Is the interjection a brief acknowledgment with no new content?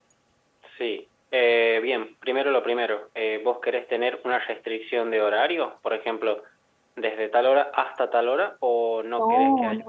No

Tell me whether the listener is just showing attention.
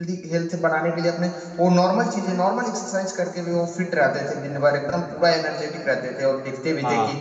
Yes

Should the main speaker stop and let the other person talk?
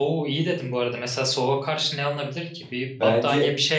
Yes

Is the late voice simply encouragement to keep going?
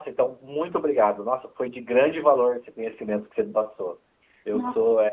Yes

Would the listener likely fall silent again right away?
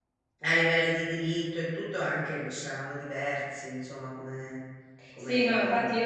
No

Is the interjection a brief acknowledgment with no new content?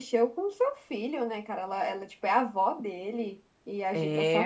Yes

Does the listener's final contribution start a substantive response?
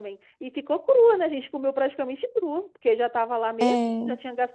No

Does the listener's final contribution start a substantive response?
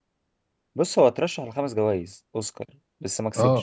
Yes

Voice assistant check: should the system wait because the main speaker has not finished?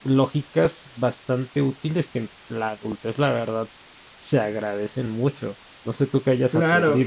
No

